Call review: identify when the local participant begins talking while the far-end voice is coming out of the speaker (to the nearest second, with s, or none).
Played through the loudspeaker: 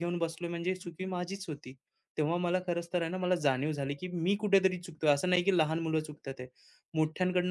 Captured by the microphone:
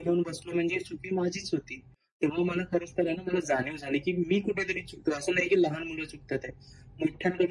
none